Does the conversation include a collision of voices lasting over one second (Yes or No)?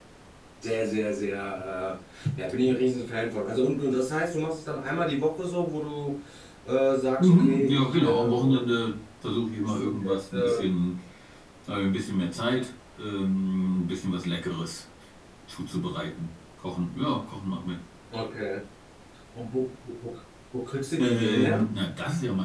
Yes